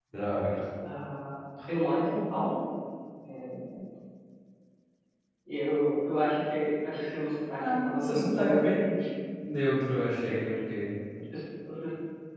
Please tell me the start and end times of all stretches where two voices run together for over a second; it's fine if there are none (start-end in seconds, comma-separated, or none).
7.6-8.8